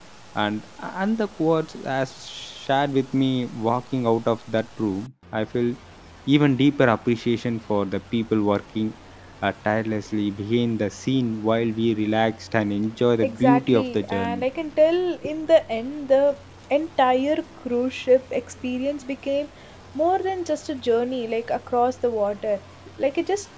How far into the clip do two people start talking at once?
13.2 s

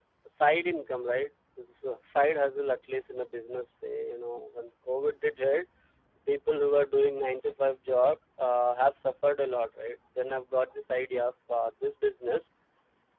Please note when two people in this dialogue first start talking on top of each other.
none

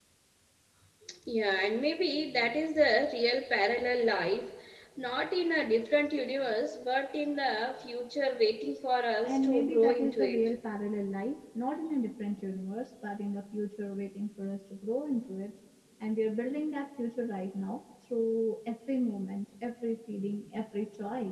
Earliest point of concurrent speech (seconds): 9.2 s

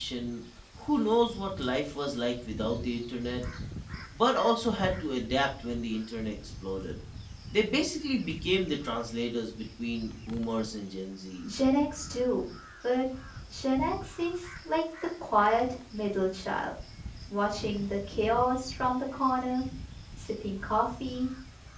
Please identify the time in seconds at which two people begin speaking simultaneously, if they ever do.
none

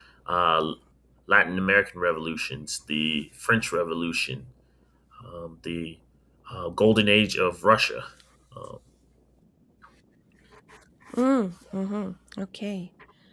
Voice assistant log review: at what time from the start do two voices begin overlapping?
none

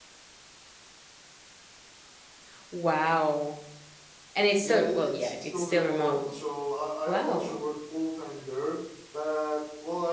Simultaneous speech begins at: 4.6 s

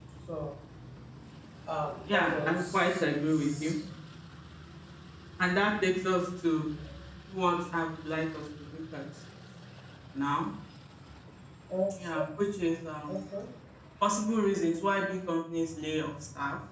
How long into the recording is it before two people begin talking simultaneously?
2.1 s

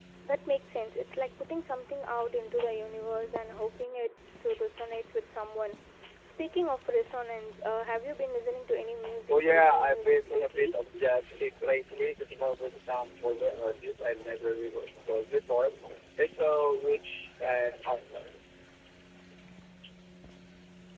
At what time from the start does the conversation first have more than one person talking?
9.3 s

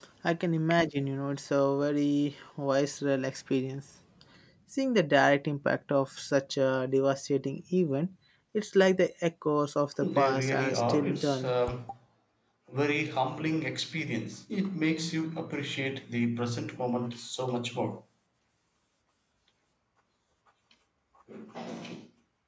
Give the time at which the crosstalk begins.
10.0 s

